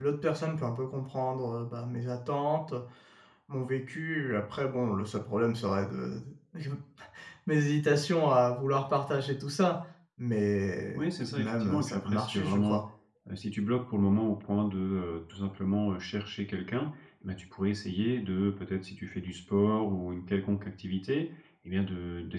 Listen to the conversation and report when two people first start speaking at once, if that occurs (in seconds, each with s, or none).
10.9 s